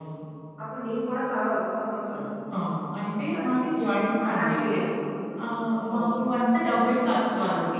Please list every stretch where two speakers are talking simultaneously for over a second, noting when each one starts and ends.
none

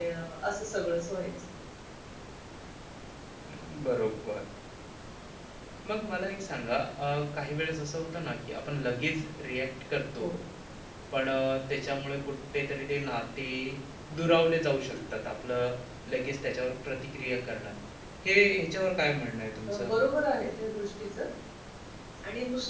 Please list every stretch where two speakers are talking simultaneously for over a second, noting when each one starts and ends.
none

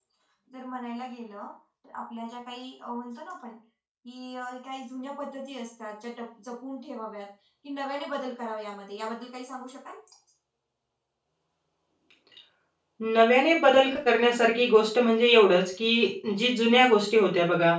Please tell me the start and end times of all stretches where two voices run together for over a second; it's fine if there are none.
none

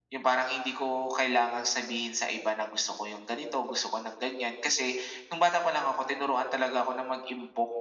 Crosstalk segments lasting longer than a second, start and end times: none

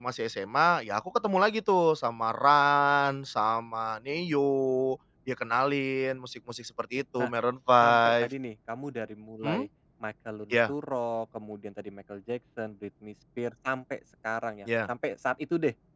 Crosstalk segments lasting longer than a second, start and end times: none

